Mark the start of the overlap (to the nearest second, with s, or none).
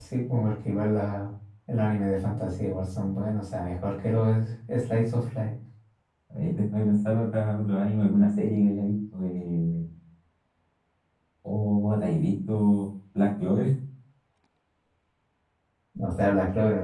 none